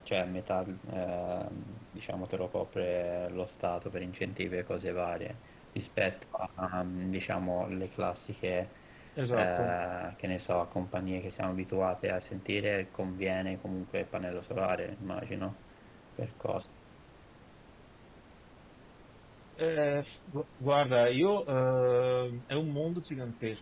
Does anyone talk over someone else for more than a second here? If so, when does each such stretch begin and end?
none

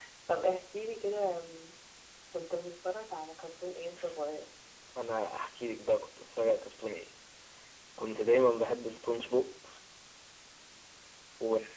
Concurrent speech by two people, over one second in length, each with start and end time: none

